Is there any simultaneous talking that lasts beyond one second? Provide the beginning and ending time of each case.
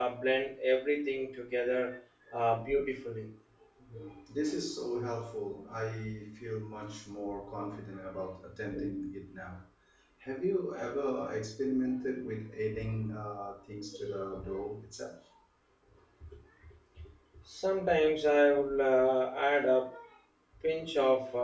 none

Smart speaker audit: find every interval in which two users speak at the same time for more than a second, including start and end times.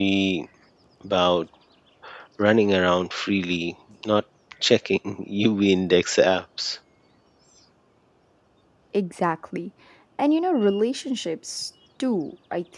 none

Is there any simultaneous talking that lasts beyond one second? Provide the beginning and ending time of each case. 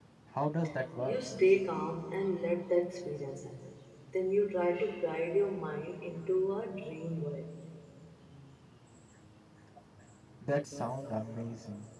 none

